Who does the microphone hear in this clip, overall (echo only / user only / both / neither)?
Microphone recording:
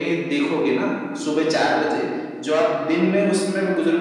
echo only